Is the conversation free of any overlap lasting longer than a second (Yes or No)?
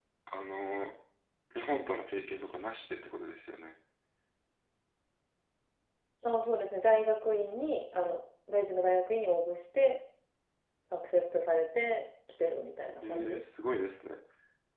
Yes